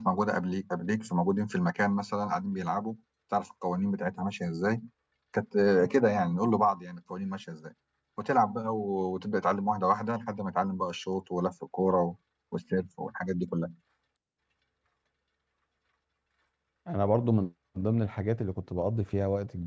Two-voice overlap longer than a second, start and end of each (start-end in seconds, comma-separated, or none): none